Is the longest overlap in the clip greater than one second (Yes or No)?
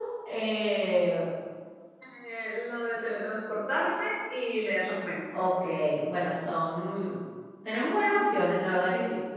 No